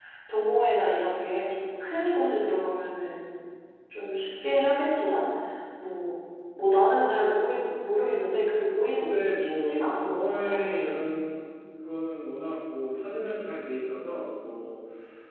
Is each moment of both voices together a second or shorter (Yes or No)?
No